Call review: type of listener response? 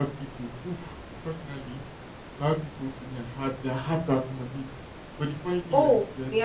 taking over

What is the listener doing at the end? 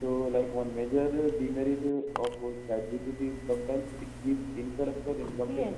taking over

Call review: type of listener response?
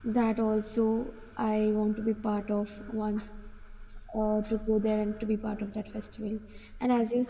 listening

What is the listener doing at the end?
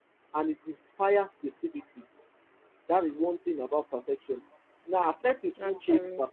listening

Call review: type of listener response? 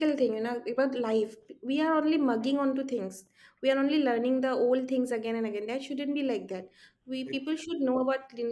listening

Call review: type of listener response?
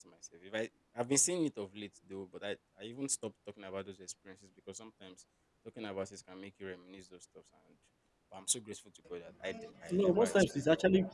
taking over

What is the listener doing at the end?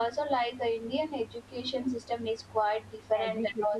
listening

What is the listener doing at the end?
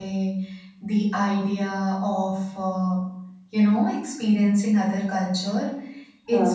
listening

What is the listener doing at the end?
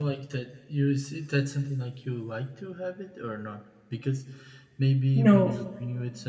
listening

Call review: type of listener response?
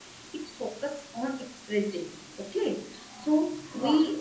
listening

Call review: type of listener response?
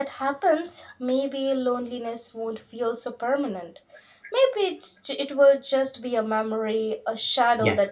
taking over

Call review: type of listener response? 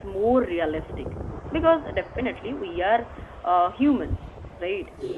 listening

